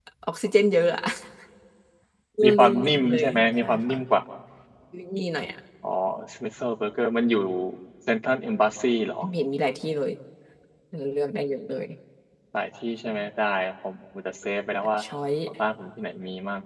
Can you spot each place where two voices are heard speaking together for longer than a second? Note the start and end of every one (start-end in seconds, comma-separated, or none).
2.4-4.0